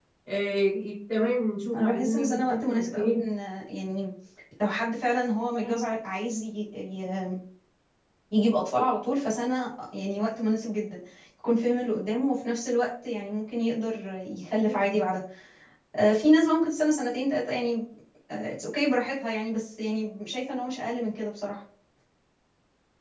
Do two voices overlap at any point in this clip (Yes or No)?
Yes